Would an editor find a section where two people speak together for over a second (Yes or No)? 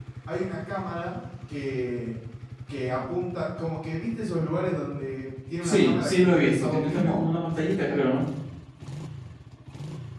Yes